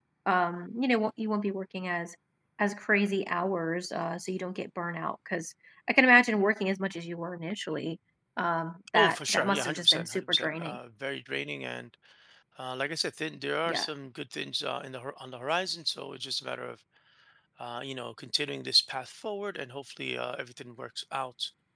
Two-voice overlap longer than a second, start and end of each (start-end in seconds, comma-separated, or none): 8.9-10.8